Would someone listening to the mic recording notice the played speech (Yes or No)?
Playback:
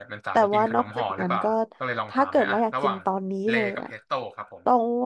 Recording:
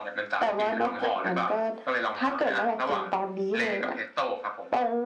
Yes